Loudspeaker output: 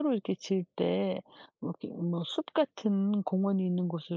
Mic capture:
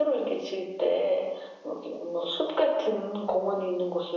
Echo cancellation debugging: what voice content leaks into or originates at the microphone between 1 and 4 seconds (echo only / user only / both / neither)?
echo only